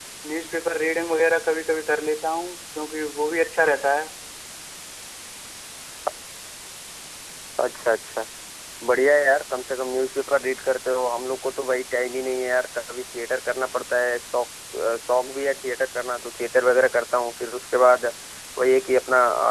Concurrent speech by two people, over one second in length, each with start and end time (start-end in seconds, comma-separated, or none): none